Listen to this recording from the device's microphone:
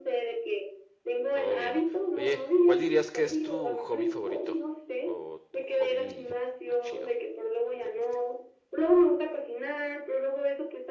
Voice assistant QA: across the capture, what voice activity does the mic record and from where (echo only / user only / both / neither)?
both